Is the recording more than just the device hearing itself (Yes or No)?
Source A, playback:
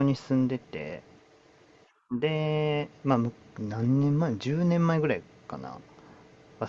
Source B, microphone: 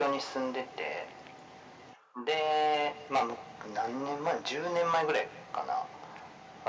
No